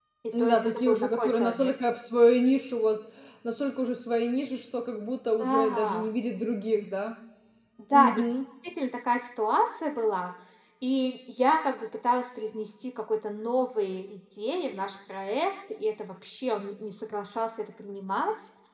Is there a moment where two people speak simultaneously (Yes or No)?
Yes